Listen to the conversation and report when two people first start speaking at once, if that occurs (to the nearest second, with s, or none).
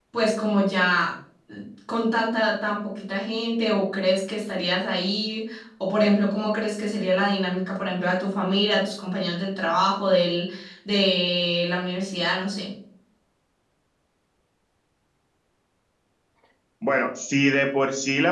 none